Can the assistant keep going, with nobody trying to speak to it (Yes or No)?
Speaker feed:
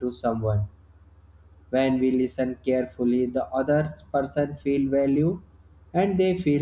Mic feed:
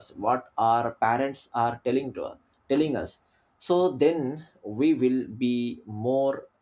No